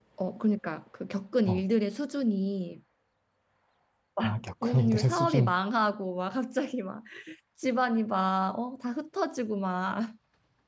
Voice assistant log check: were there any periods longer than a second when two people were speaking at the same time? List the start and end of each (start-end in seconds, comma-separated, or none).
4.2-5.5